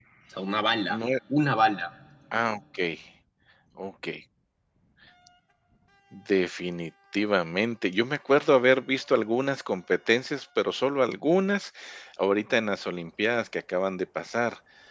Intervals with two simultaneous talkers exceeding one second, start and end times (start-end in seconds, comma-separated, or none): none